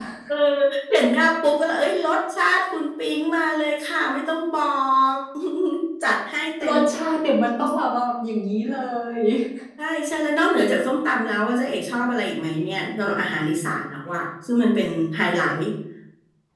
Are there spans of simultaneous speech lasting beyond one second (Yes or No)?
No